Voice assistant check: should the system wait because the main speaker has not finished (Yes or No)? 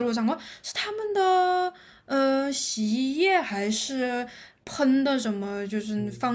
No